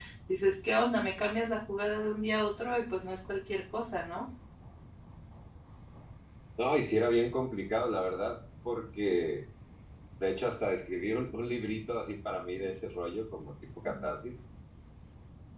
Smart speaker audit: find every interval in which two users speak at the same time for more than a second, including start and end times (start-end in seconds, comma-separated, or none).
none